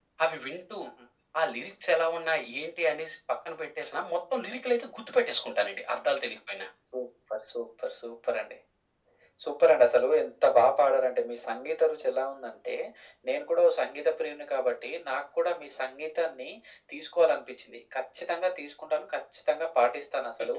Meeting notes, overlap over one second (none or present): none